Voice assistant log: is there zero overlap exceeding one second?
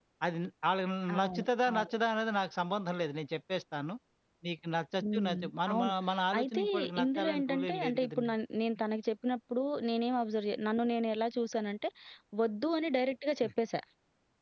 No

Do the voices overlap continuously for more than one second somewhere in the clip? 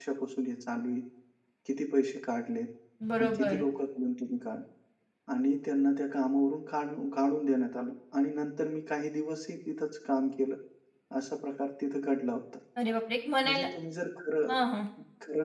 No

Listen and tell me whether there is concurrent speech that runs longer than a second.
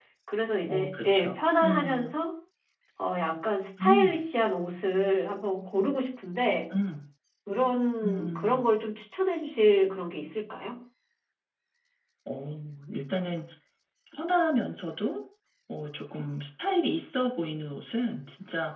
Yes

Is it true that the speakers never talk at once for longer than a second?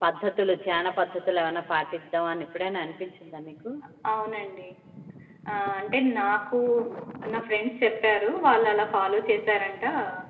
Yes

